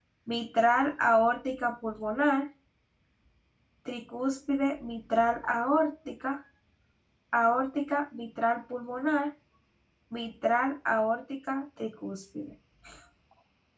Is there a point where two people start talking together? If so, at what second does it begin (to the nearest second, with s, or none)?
none